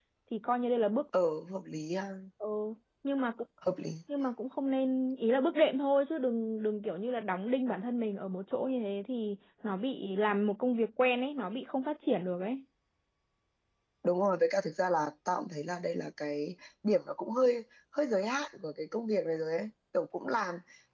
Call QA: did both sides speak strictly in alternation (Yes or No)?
Yes